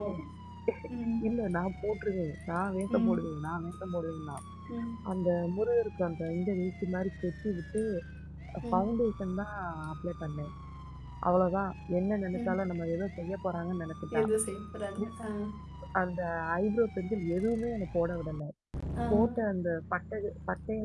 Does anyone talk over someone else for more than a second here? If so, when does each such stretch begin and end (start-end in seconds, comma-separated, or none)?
none